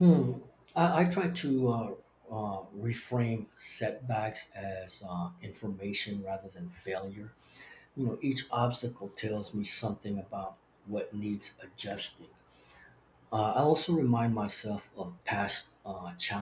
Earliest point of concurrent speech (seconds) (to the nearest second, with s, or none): none